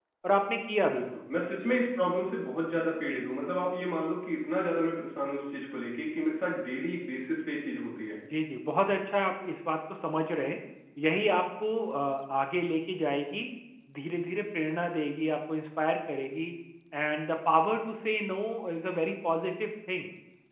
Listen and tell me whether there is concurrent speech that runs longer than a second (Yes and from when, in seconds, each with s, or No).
No